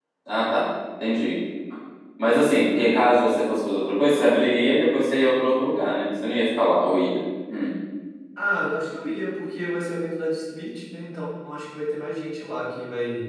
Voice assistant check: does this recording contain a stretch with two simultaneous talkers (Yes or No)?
No